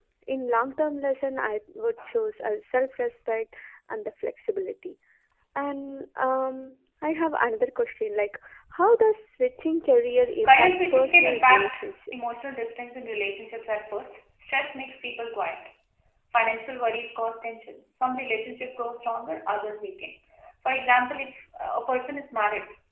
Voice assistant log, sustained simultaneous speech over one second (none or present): present